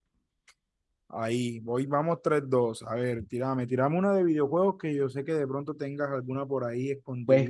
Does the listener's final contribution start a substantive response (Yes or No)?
Yes